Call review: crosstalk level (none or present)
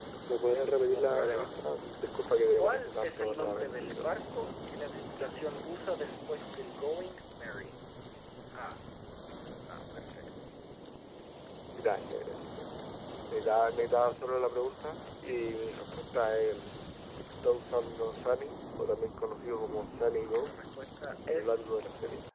present